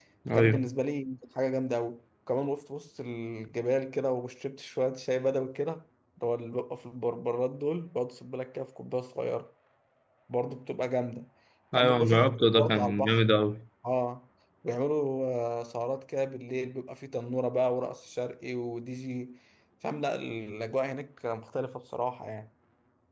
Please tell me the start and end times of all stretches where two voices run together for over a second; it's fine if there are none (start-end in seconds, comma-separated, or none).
11.7-13.2